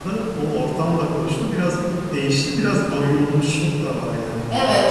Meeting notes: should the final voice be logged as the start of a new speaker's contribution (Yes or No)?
Yes